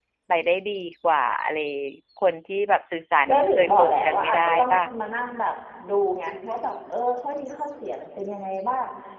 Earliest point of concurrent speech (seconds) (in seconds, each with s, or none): 3.3 s